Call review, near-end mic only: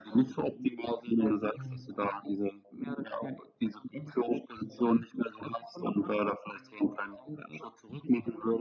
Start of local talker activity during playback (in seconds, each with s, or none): 1.5 s